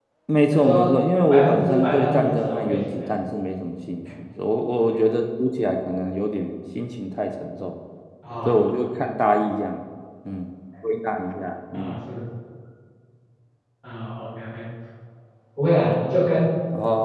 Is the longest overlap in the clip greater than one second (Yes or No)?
Yes